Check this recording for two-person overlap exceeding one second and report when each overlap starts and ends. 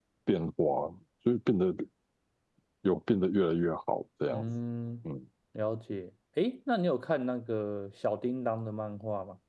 none

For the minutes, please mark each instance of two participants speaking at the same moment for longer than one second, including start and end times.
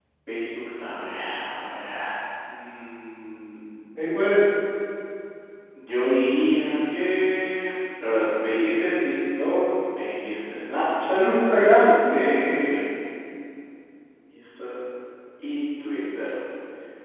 11.1-12.8

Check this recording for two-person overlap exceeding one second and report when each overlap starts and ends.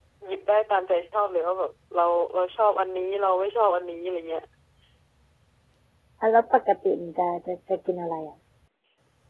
none

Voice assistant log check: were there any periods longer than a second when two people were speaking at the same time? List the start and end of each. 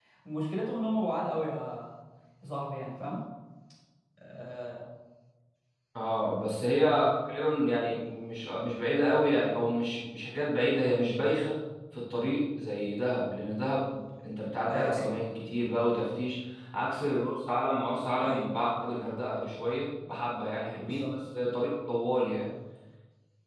none

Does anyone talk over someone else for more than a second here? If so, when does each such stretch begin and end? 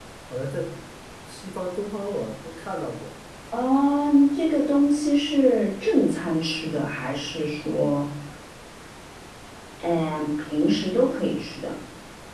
none

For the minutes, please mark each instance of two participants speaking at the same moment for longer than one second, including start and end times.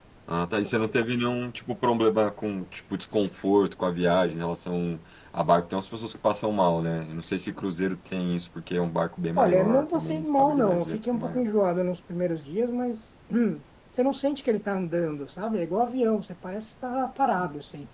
9.4-11.5

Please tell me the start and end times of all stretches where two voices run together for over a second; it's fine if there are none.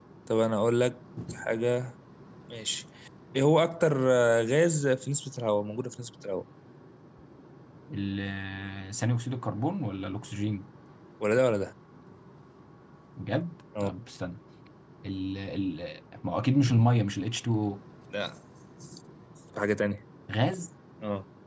none

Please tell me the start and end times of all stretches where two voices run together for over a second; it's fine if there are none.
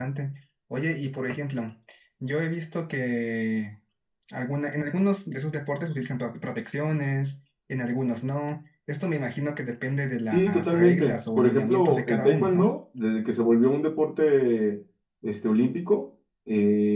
10.3-12.7

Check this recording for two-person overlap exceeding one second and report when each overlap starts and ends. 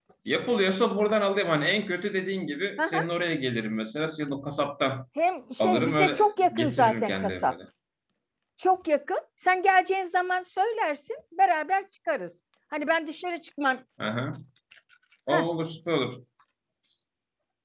5.6-7.5

